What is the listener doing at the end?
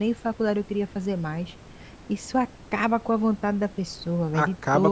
taking over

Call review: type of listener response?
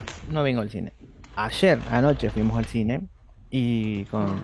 listening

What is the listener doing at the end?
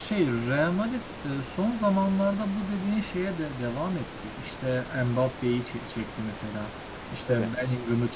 listening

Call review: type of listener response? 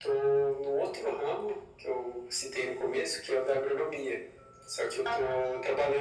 listening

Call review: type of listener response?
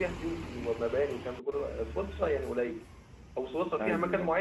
listening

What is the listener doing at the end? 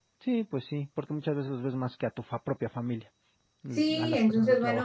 taking over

